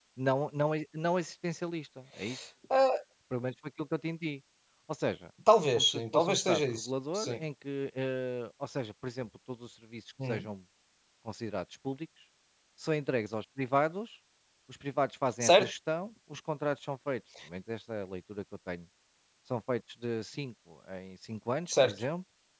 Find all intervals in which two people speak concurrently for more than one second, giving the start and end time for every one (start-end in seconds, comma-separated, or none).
5.8-7.4